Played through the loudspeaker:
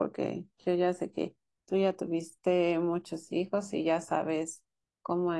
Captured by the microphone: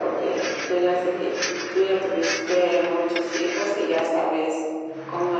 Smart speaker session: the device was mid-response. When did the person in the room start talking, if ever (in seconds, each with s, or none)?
none